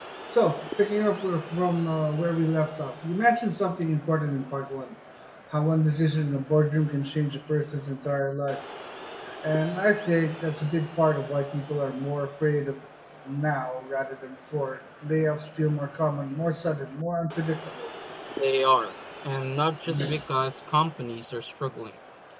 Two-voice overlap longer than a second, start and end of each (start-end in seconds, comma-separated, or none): none